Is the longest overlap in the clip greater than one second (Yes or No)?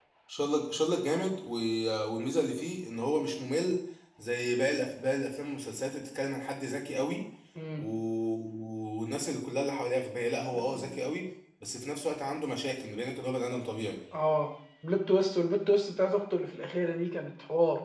No